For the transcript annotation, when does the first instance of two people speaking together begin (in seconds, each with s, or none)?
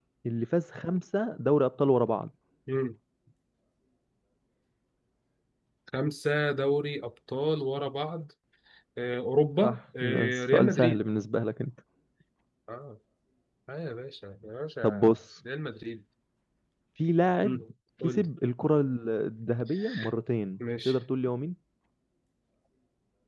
9.6 s